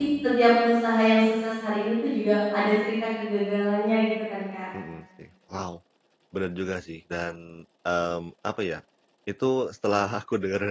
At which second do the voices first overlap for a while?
none

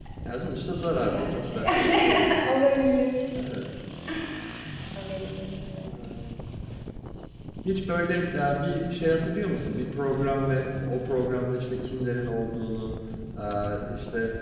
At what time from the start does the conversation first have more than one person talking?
0.7 s

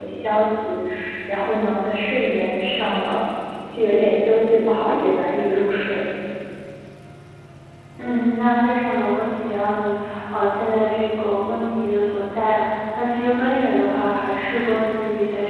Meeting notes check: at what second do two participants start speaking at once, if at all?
none

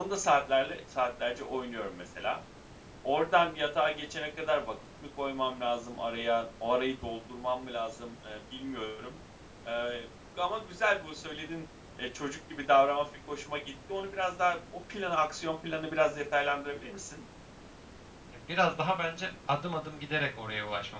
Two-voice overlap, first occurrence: none

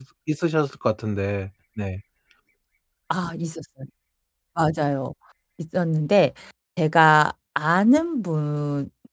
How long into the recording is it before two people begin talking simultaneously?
none

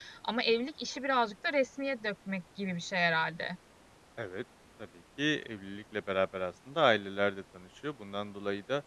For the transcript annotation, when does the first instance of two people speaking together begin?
none

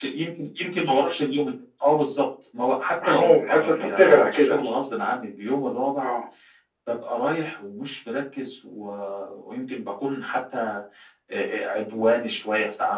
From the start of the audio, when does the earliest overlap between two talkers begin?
3.0 s

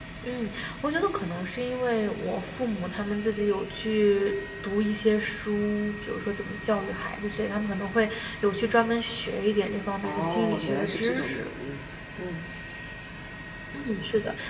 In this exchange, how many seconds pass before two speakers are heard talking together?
10.0 s

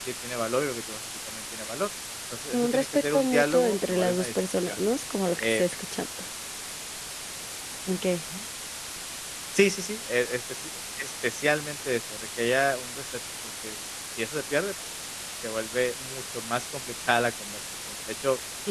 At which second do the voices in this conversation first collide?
2.5 s

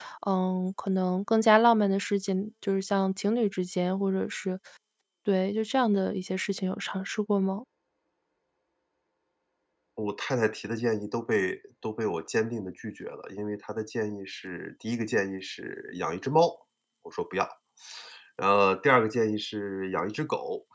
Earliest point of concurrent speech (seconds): none

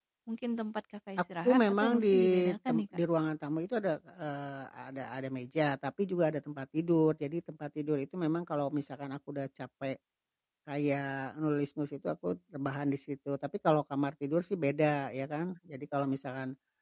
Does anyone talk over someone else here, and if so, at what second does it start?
1.4 s

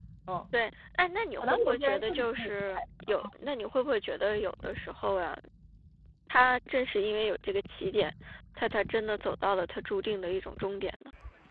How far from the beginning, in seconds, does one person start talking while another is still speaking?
1.4 s

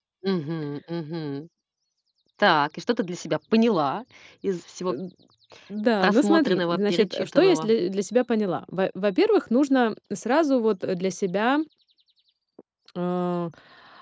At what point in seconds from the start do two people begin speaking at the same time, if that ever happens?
6.0 s

